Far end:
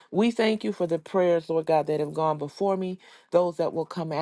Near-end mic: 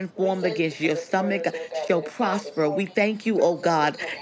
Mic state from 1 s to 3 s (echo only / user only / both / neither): both